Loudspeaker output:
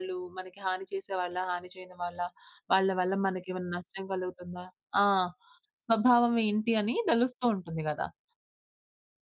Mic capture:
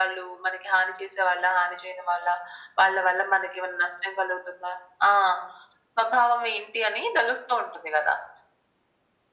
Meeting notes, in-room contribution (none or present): none